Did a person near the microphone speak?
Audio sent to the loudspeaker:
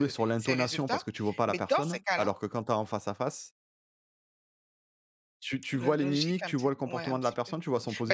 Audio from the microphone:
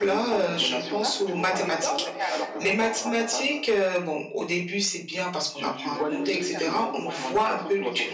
Yes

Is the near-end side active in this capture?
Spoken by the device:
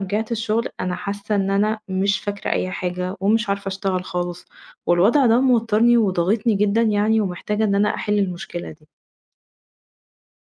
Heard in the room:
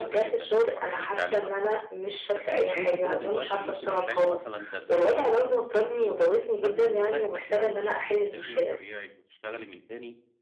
Yes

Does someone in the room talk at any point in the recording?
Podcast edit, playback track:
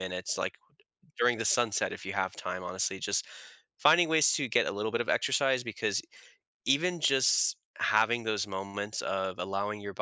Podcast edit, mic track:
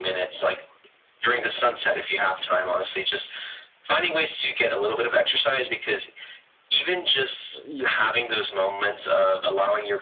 Yes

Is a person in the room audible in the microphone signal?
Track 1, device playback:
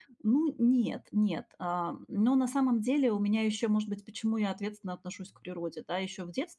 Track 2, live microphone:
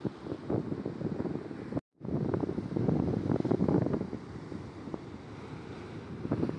No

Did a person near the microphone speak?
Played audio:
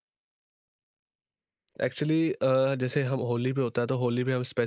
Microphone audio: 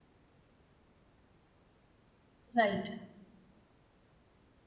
Yes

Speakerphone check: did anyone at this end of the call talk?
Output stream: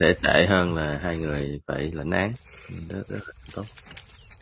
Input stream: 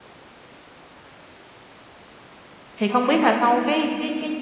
Yes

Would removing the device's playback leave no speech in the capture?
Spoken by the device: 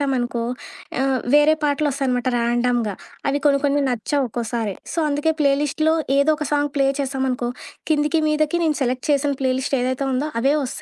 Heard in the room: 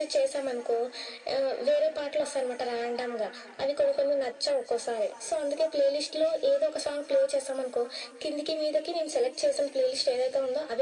Yes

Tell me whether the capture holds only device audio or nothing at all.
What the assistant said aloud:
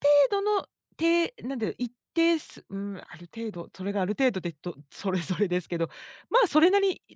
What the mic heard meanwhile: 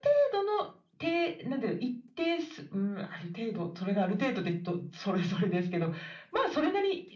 Yes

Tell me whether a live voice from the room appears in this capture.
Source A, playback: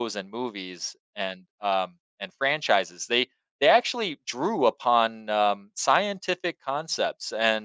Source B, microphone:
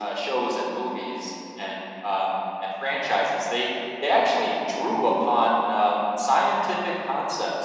No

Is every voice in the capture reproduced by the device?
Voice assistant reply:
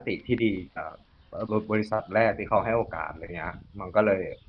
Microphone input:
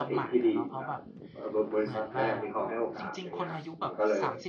No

